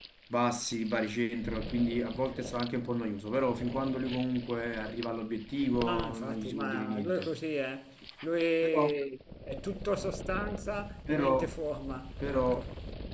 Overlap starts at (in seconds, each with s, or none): 5.8 s